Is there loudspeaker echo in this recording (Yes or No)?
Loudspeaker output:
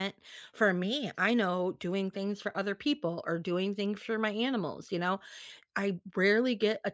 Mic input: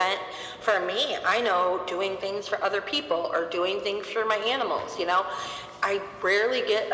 Yes